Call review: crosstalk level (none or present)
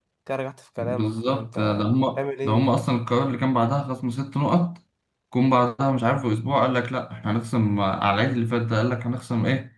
present